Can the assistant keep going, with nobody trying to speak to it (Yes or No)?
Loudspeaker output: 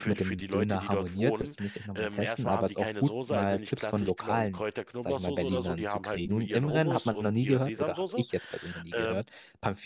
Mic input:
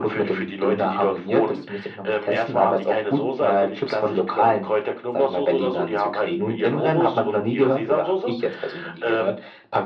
Yes